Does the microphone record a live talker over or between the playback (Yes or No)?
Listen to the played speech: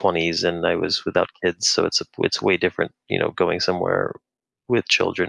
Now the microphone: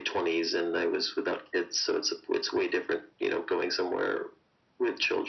No